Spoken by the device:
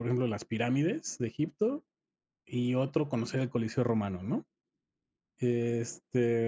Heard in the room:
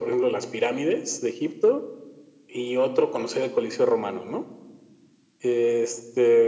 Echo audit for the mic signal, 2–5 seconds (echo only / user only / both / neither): echo only